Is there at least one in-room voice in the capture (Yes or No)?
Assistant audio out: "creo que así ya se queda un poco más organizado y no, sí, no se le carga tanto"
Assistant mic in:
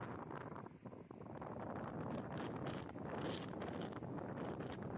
No